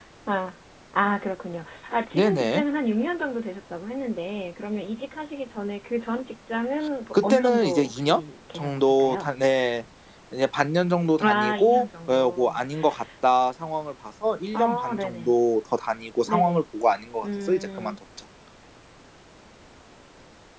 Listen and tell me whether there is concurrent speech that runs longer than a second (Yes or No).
Yes